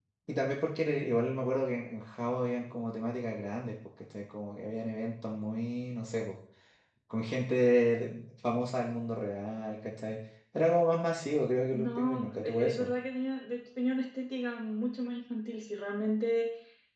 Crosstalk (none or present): present